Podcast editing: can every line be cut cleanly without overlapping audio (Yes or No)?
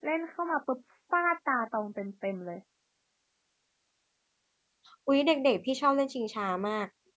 Yes